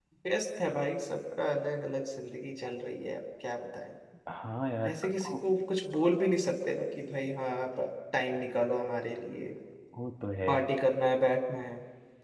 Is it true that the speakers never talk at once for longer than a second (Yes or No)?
Yes